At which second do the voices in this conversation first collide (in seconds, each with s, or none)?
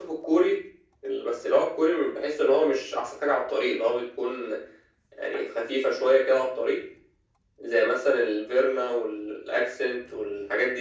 none